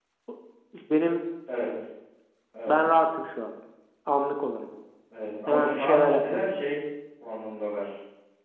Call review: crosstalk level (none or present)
present